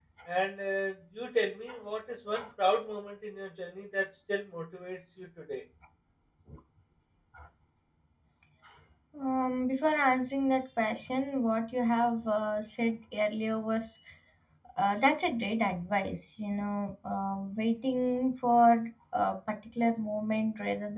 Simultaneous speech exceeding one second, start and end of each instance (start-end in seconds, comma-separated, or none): none